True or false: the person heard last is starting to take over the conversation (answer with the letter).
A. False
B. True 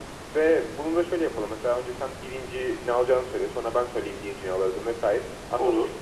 A